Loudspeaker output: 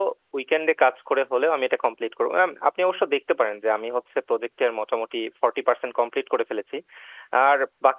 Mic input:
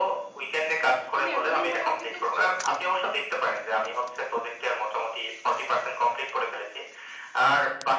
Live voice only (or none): তুমি এতদিন পরে অফিসে এসছো